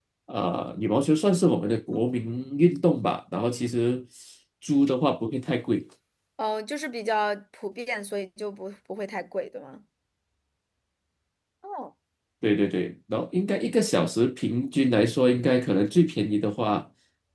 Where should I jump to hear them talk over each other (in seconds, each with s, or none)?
none